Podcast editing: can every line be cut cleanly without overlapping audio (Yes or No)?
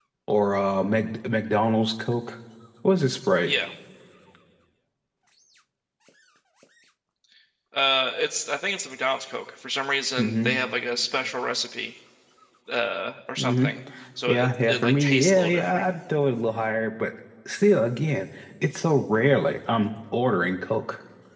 No